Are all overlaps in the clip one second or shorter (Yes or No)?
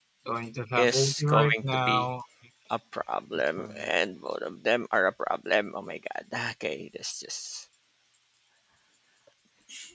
No